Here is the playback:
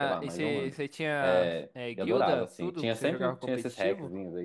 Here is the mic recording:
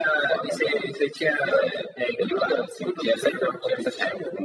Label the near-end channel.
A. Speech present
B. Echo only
B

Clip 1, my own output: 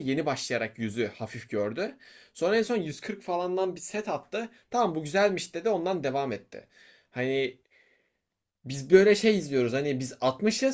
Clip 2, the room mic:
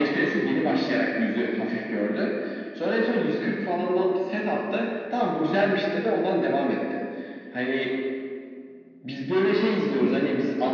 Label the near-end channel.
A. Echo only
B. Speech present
A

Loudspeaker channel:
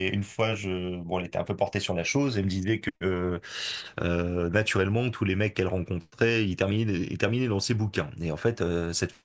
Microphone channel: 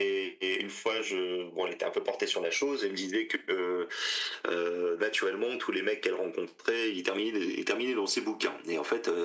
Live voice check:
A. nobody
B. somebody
A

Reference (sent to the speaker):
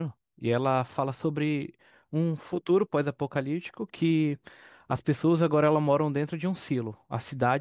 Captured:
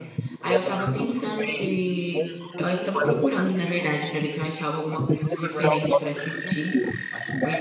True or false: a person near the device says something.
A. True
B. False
A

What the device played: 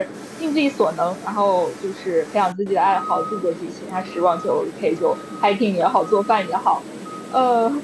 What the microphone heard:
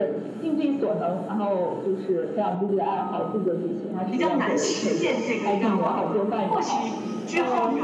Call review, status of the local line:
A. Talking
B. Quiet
A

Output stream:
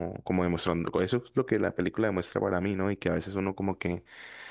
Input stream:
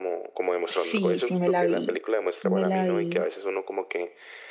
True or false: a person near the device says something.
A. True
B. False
A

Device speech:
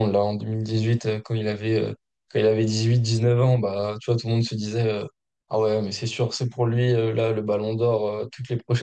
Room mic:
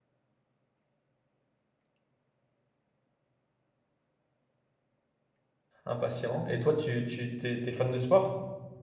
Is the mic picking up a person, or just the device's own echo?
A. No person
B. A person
B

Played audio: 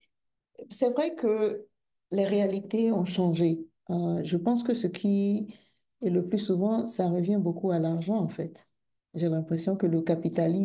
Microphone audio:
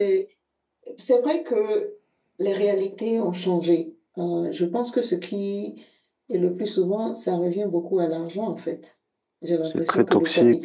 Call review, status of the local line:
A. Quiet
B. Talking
B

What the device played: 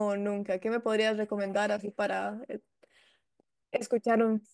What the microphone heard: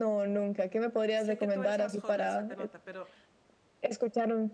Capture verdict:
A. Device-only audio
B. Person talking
B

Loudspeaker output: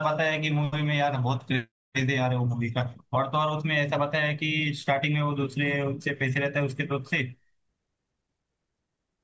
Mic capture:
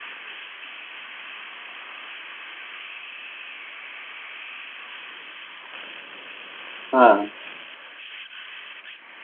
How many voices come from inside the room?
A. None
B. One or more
B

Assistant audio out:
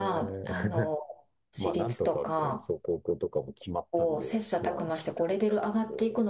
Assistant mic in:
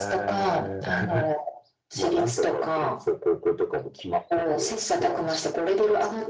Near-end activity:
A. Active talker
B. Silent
B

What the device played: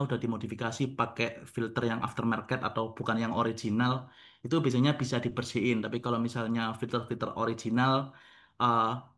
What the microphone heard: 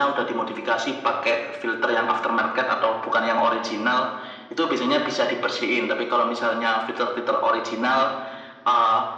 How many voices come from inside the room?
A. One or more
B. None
B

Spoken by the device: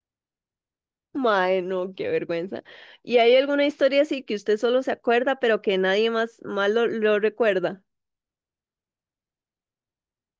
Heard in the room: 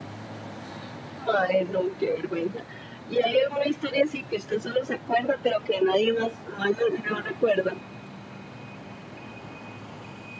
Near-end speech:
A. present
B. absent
B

